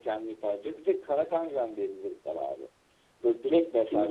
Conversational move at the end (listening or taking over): listening